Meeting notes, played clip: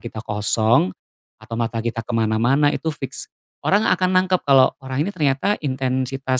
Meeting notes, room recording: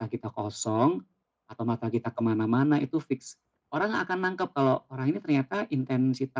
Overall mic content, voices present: echo only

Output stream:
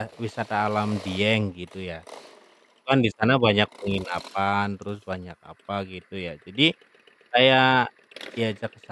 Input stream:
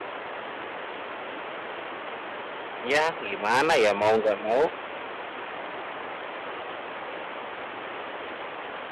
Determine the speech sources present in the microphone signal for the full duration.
user only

